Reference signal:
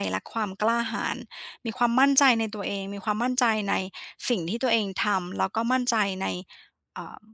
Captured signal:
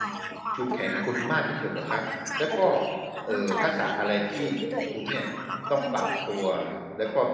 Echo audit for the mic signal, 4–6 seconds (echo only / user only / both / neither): both